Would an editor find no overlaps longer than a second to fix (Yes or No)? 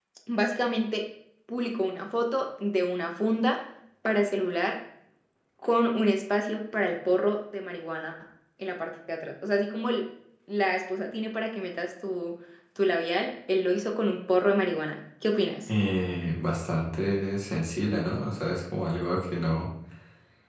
Yes